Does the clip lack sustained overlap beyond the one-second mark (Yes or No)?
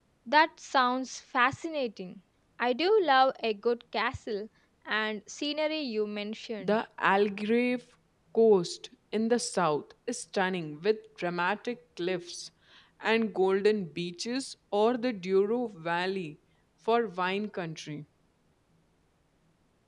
Yes